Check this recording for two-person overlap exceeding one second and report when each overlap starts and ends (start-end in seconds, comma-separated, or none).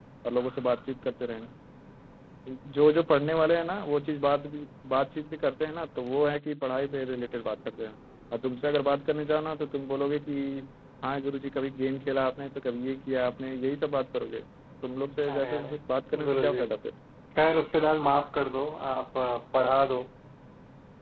none